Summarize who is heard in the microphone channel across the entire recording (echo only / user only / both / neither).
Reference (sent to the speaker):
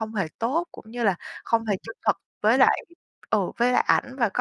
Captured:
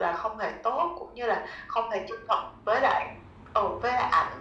echo only